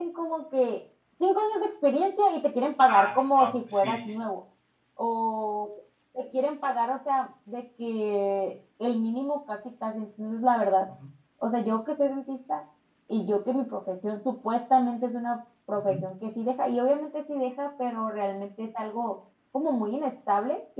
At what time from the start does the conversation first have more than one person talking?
3 s

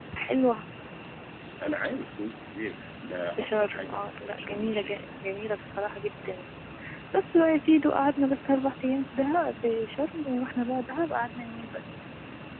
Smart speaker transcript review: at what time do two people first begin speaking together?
3 s

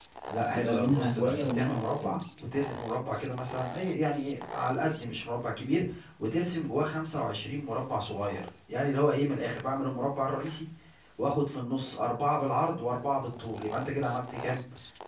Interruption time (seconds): 1 s

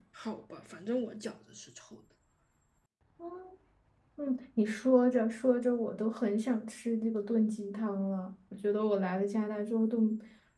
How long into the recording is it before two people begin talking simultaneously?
none

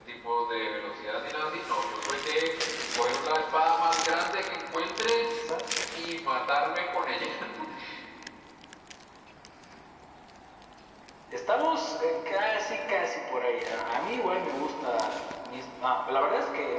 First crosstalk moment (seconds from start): none

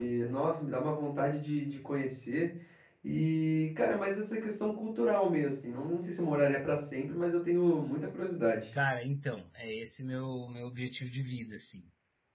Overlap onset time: none

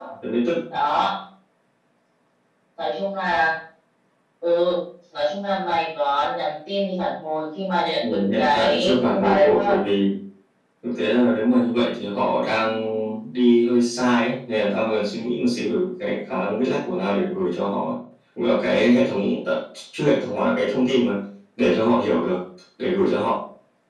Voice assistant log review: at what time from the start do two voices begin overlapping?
8 s

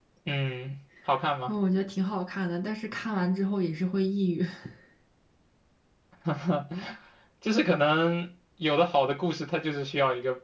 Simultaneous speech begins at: none

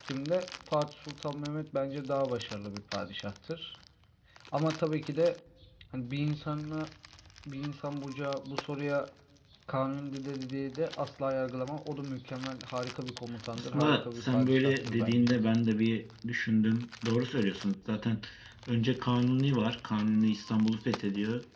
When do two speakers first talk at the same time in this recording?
14 s

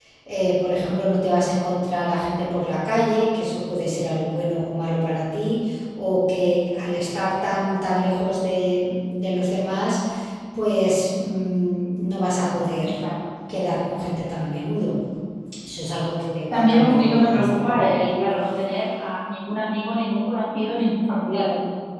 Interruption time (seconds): 17 s

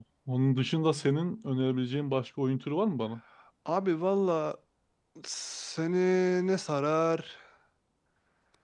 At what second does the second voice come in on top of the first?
none

